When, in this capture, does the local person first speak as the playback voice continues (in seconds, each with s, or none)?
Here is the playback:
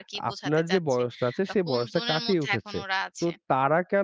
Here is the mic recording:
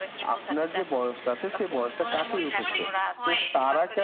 2.1 s